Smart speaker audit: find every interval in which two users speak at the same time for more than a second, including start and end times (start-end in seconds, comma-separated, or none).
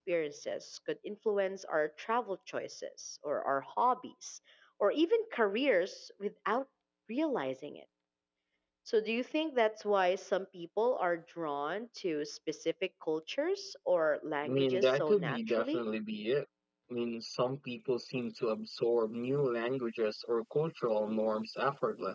14.5-15.8